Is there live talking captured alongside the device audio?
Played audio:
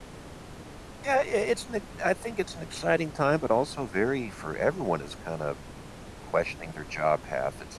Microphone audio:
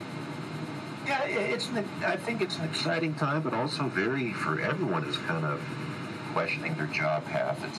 No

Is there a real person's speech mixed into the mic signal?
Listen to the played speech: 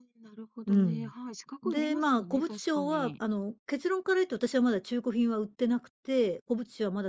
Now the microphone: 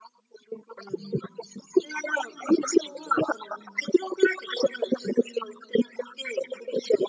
No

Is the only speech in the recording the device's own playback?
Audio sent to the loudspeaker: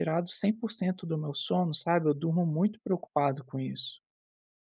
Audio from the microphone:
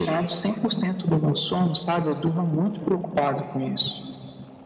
Yes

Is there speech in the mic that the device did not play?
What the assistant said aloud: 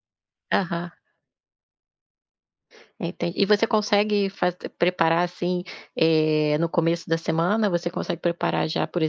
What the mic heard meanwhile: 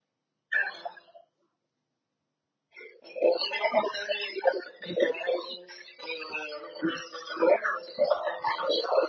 No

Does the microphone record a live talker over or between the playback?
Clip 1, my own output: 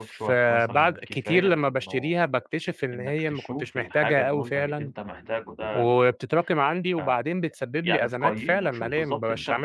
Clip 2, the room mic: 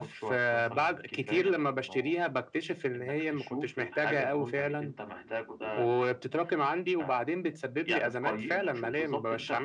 No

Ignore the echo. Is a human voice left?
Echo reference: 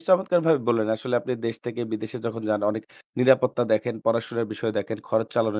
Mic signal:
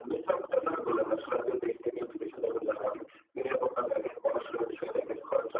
No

